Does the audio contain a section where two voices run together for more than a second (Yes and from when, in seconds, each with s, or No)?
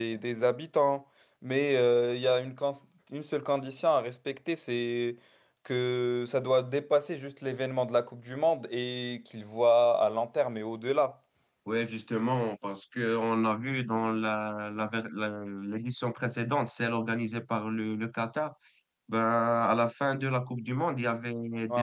No